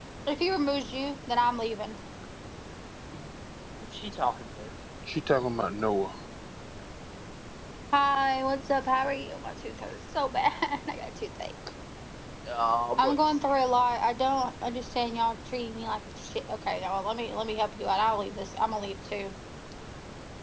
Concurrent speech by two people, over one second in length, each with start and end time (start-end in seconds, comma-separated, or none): none